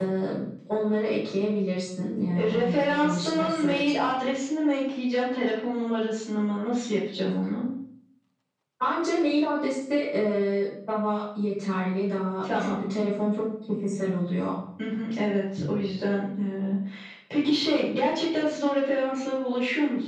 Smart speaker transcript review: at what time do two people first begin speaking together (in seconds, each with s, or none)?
2.4 s